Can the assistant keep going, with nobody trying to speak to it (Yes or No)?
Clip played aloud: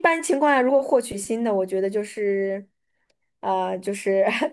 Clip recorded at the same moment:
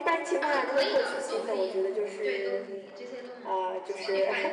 No